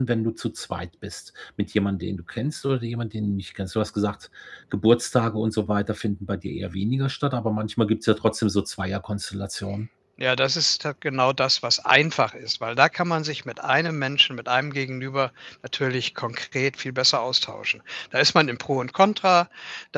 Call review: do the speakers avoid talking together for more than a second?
Yes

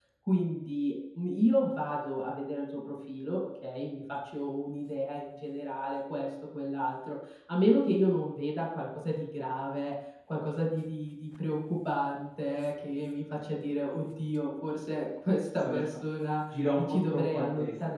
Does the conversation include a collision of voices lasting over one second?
Yes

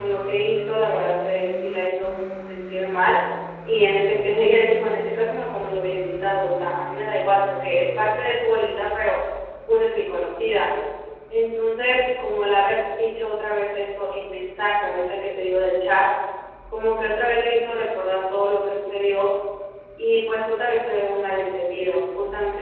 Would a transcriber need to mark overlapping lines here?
No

